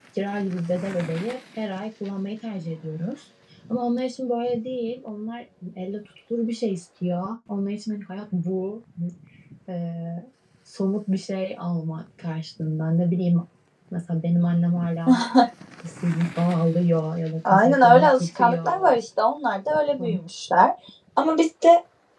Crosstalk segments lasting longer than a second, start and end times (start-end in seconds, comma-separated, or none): 17.4-18.9